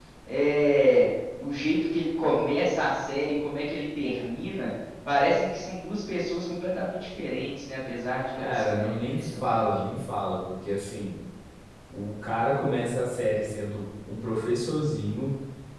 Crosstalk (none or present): present